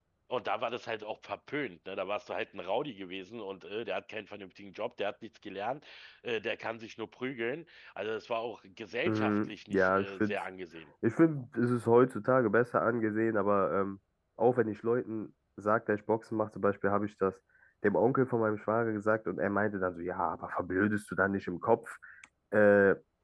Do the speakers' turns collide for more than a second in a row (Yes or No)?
Yes